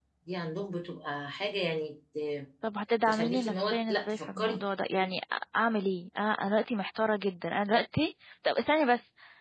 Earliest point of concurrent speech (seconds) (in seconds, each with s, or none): 3.1 s